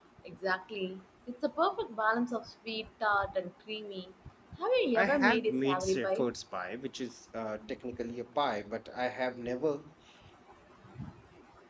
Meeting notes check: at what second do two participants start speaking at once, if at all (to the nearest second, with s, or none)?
5 s